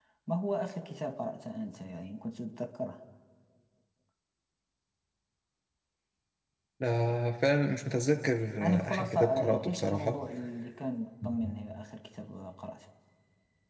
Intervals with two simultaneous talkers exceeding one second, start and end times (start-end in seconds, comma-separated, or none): 8.6-10.2